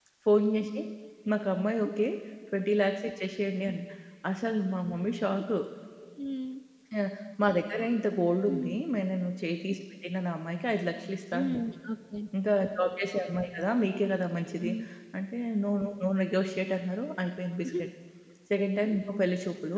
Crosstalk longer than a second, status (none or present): none